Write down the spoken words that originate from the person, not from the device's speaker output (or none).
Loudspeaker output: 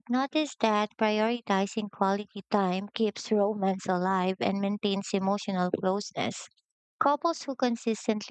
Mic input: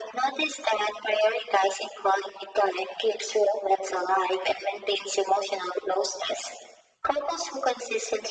none